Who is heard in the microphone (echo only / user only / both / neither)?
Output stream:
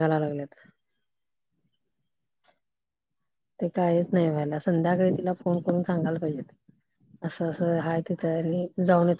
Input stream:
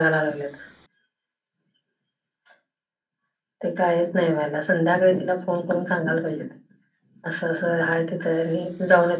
echo only